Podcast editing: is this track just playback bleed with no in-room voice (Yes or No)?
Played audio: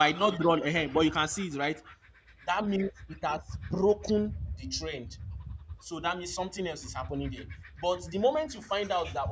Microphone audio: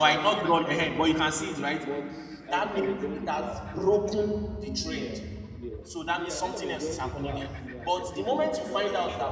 No